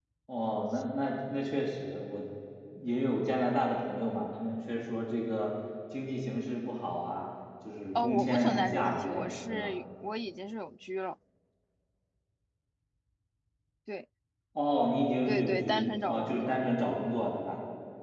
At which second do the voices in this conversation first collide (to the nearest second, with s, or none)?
8 s